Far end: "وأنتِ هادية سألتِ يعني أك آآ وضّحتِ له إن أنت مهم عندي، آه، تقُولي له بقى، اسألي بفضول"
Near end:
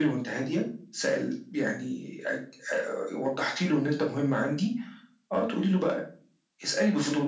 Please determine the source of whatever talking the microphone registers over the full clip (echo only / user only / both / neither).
echo only